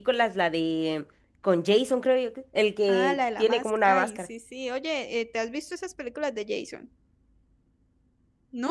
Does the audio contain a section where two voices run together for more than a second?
Yes, from 2.9 s

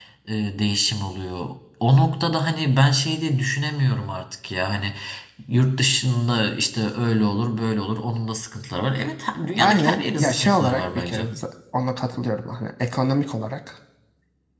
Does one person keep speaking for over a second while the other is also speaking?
Yes, from 9.4 s

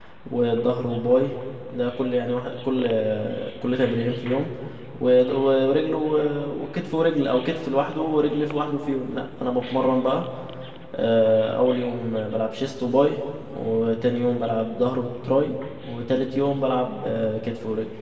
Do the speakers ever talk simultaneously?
No

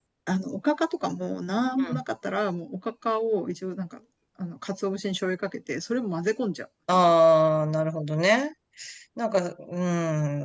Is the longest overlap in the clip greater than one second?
No

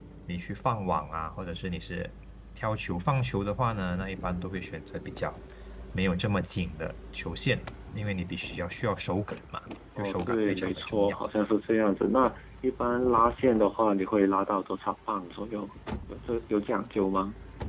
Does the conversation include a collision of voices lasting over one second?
Yes, from 10.0 s

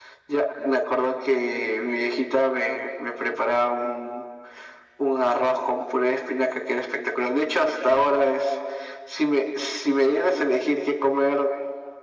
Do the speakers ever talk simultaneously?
No

